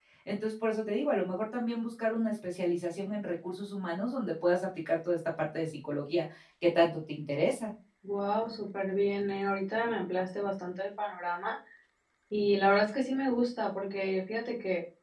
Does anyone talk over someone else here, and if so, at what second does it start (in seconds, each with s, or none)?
none